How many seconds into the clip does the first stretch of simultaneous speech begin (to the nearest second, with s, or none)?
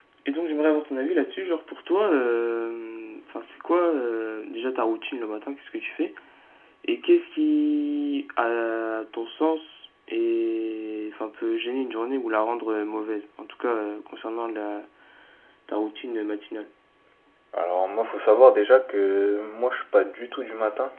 none